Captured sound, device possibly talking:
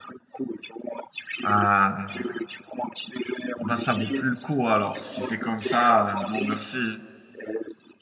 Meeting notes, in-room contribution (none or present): present